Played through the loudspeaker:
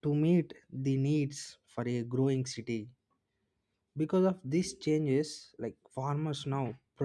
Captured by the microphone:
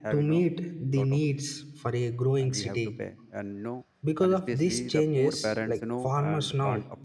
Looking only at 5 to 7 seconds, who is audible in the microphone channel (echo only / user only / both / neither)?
both